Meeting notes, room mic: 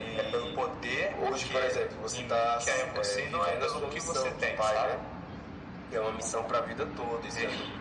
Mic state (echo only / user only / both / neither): echo only